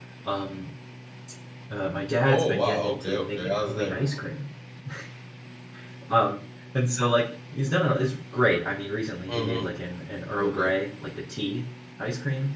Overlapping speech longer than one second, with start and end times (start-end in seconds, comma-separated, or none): 2.3-4.1